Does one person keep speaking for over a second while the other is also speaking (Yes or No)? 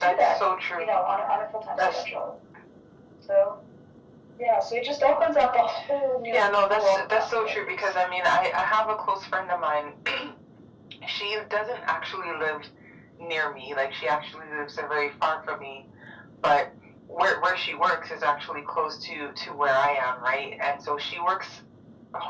Yes